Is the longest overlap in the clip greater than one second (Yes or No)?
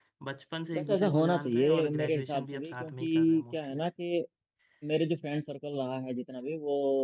Yes